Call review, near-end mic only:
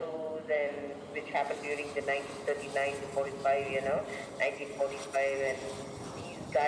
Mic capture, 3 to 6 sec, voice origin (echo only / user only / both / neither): echo only